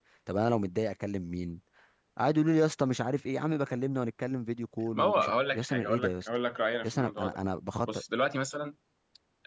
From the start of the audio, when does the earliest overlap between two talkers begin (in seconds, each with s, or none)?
4.9 s